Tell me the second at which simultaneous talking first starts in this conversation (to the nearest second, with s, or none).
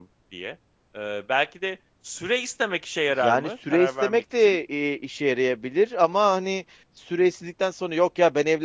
3 s